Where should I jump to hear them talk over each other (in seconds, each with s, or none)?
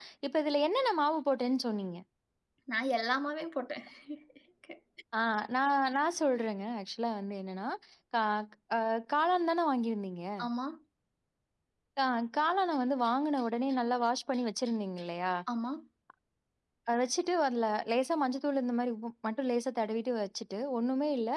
none